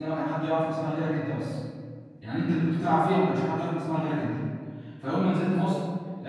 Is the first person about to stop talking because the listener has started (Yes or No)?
No